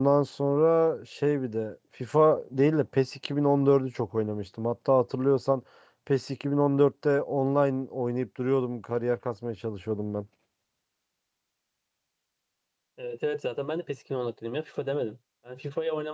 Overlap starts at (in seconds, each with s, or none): none